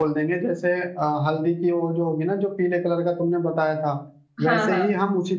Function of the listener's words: listening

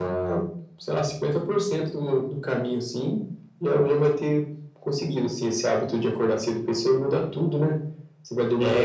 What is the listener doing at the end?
listening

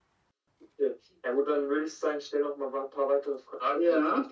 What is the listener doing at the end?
listening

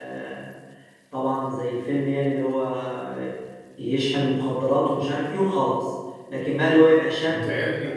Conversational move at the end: listening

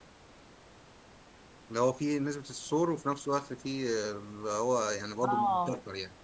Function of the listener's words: taking over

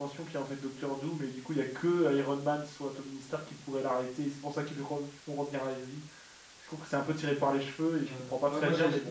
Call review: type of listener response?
taking over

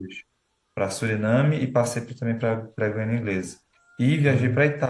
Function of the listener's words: listening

